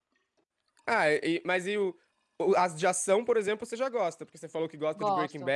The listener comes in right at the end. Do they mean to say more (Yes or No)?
No